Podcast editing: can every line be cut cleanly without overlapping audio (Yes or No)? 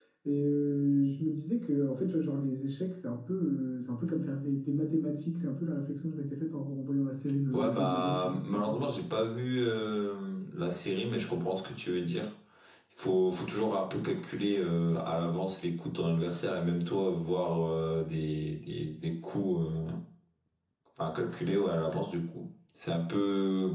No